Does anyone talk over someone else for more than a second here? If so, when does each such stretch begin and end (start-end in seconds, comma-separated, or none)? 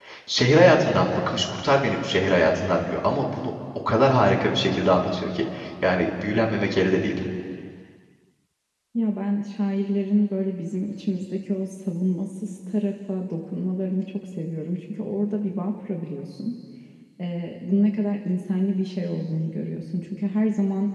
none